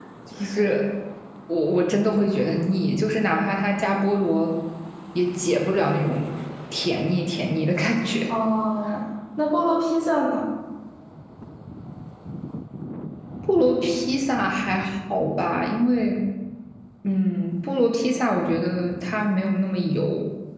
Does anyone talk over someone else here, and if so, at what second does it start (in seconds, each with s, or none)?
none